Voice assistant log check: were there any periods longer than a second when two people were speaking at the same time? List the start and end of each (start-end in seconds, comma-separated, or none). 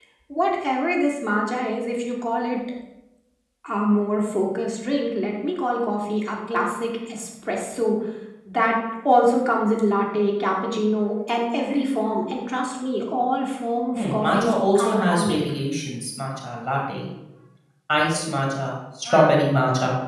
14.0-15.4